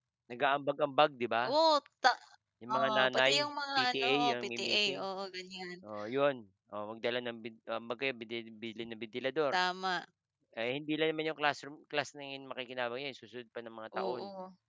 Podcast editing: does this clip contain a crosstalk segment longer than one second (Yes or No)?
Yes